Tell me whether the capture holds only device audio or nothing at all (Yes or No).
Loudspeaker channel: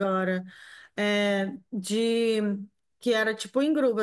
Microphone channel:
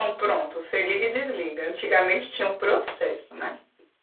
No